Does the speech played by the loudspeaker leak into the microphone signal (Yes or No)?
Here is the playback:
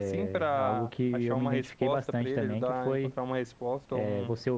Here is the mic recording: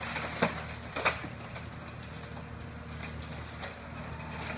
No